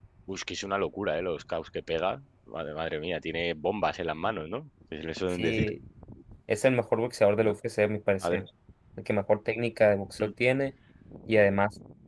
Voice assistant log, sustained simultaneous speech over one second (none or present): none